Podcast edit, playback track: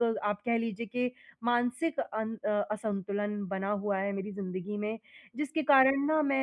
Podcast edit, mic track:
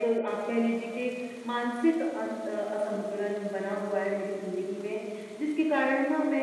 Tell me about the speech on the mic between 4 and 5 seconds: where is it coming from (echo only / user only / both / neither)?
echo only